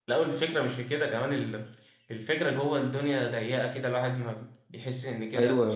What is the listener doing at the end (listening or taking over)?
taking over